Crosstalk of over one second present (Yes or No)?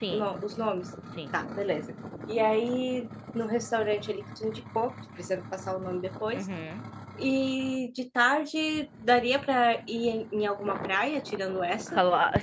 No